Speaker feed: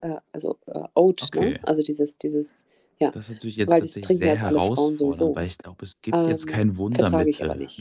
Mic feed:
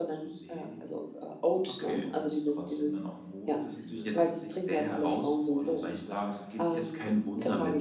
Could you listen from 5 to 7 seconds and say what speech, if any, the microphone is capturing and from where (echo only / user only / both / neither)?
both